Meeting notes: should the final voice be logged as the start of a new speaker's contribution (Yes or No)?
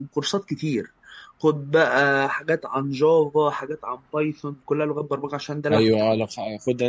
Yes